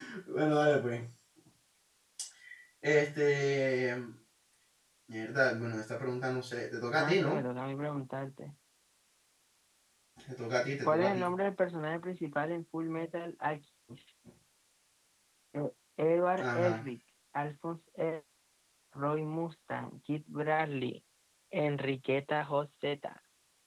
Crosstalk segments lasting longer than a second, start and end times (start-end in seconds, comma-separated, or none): none